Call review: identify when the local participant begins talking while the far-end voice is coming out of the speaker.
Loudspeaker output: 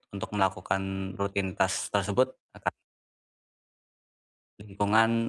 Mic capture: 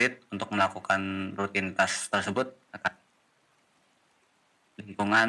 none

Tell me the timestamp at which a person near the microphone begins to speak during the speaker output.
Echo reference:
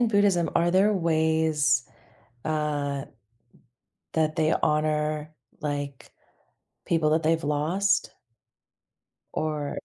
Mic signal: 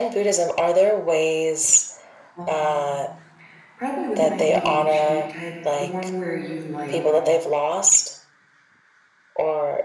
2 s

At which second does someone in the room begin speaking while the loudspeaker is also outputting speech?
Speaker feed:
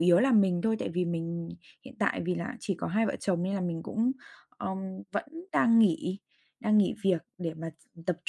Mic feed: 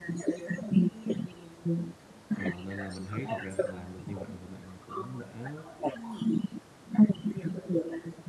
2 s

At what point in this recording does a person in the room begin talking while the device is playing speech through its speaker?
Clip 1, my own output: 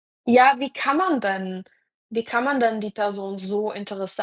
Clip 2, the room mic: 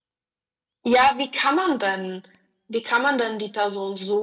none

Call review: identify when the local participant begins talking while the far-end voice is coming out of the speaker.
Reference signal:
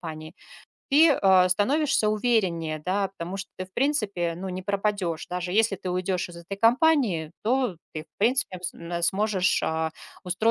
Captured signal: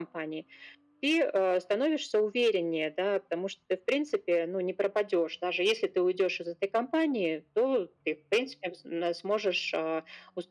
none

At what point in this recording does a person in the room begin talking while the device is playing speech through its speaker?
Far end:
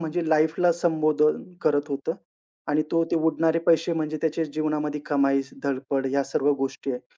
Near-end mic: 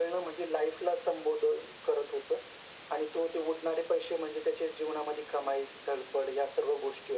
none

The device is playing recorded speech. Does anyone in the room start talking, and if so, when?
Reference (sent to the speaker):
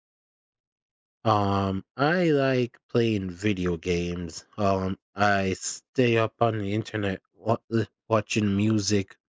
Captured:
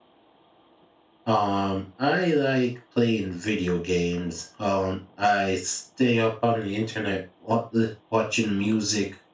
none

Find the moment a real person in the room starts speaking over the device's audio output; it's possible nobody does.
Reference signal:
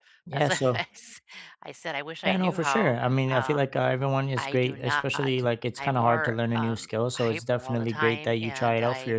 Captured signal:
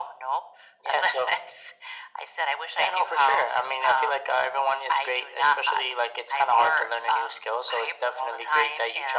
none

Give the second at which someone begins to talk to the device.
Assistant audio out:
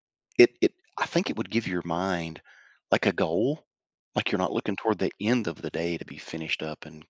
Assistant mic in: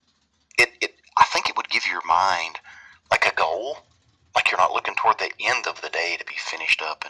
none

